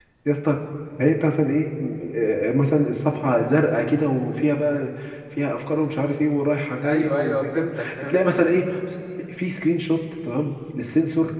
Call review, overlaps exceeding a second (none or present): present